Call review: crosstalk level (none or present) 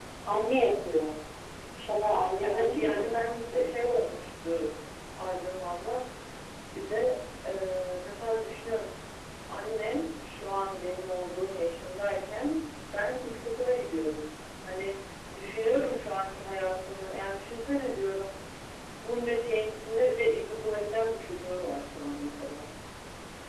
present